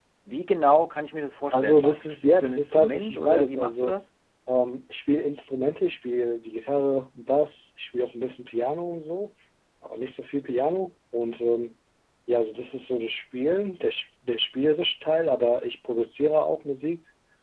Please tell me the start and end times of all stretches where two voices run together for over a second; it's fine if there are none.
1.5-4.0

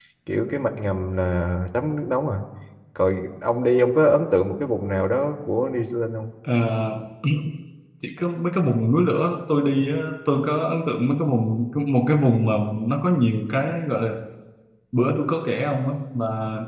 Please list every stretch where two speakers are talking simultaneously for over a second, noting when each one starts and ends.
none

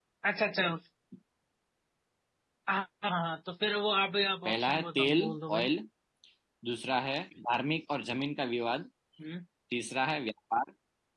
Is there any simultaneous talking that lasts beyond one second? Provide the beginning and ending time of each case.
4.5-5.7

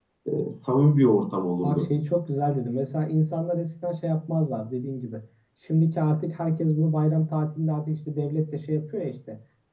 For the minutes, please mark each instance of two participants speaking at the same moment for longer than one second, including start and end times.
none

